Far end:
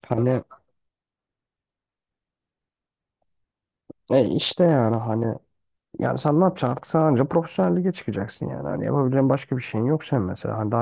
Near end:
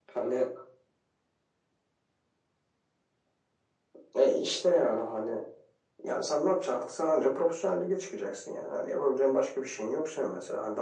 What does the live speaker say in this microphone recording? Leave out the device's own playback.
none

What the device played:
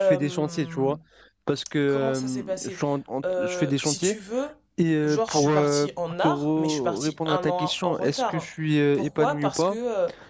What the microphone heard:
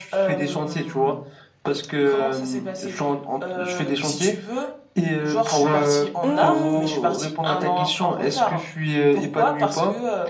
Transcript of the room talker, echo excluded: Hmm,

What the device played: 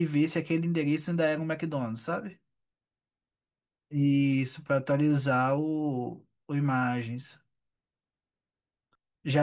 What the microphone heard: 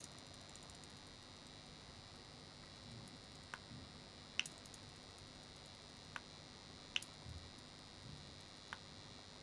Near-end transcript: none

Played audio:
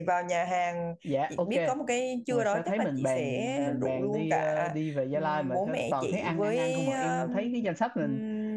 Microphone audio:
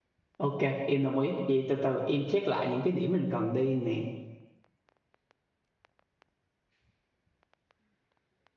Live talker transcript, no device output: ok em đồng ý vậy từ từ em check lại những cái điểm mình cần đi nè

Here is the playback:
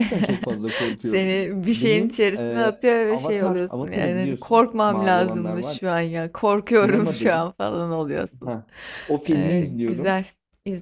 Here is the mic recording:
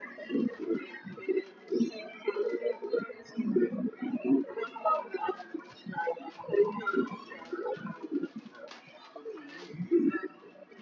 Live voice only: none

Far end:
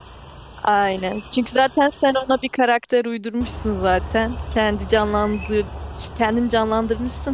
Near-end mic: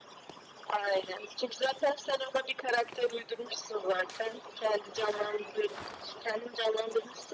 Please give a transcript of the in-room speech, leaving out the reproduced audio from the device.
none

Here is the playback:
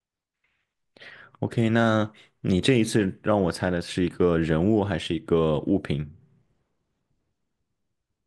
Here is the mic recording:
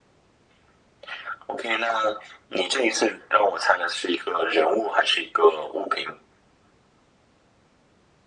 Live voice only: none

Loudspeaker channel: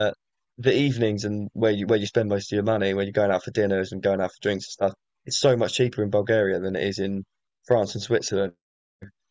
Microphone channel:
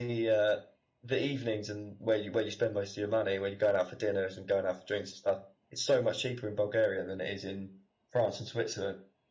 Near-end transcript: none

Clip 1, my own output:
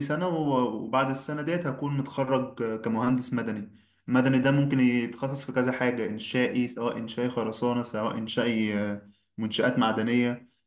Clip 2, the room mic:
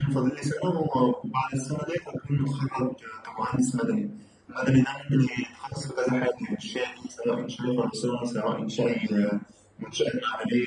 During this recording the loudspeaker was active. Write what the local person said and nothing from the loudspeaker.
none

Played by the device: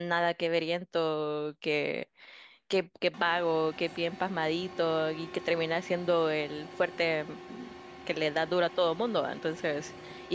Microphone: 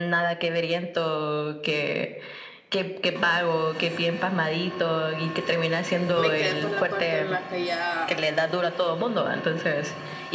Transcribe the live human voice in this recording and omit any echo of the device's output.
Me quedé por la parte en la que ya

